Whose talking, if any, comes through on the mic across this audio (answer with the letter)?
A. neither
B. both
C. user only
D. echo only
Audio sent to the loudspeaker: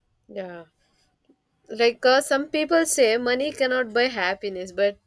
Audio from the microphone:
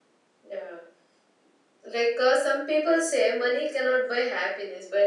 D